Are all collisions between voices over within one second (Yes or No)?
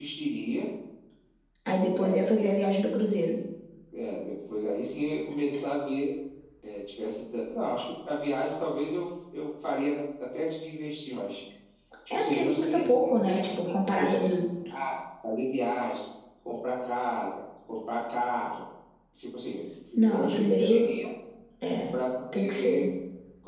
No